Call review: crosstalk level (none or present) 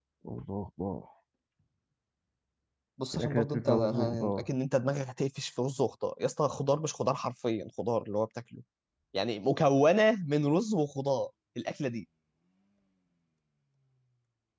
present